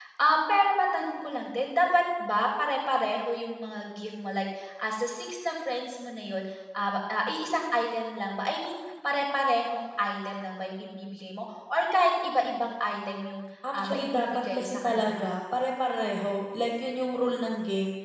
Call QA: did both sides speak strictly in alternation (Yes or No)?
No